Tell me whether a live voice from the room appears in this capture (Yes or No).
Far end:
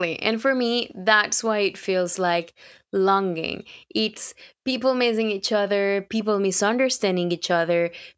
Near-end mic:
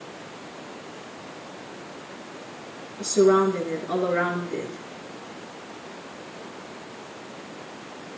Yes